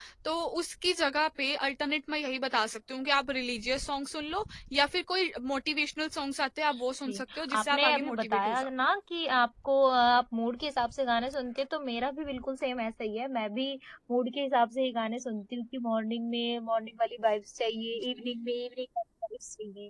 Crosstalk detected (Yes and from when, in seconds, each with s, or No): Yes, from 7.1 s